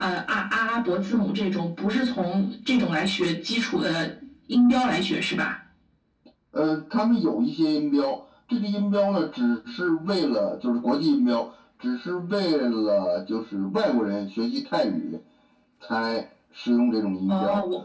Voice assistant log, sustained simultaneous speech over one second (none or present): none